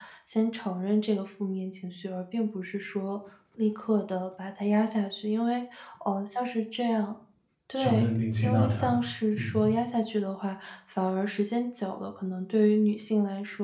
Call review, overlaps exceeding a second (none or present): present